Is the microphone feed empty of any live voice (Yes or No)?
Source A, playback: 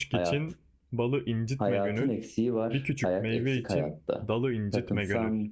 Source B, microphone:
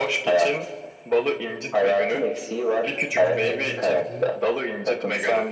No